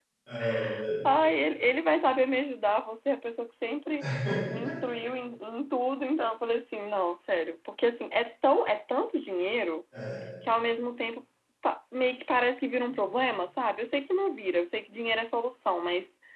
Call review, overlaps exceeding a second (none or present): none